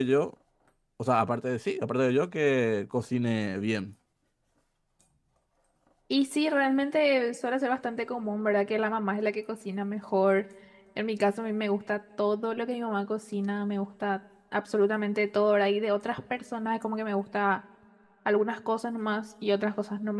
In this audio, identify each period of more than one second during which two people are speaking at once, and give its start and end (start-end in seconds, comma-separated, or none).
none